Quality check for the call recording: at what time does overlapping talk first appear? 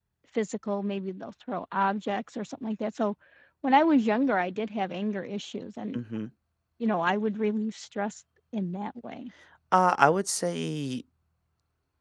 none

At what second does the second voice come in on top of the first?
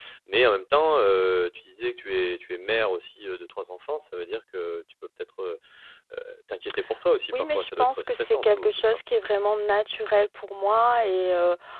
7.3 s

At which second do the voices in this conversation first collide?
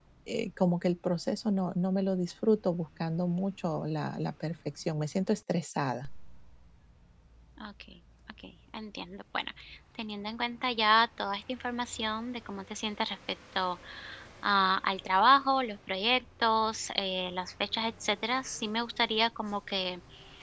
none

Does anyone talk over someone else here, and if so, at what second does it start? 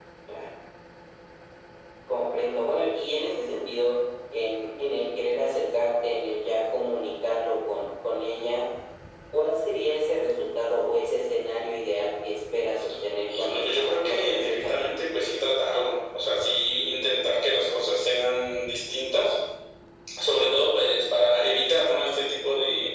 13.3 s

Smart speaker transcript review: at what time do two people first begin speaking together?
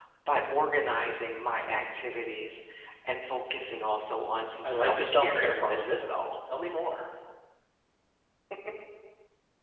4.6 s

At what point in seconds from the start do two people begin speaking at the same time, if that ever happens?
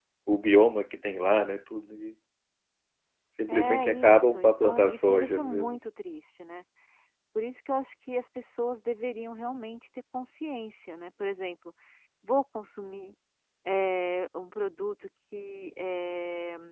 3.5 s

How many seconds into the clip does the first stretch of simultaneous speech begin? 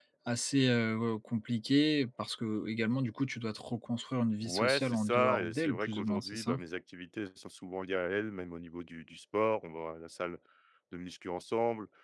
4.4 s

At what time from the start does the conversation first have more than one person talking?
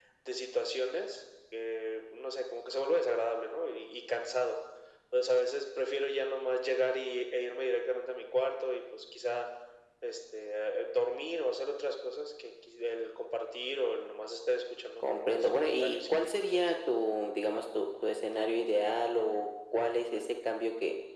15.0 s

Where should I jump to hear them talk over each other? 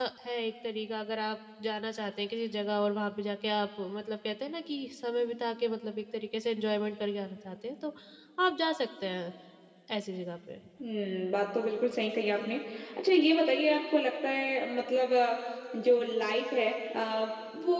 none

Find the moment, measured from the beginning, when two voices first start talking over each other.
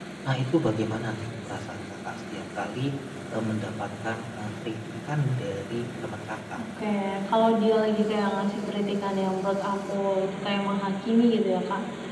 none

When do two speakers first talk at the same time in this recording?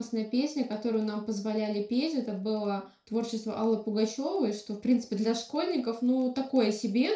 none

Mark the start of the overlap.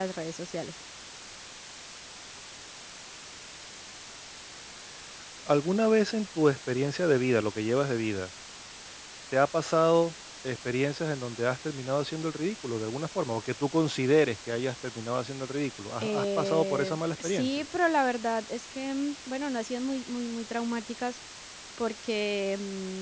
16.0 s

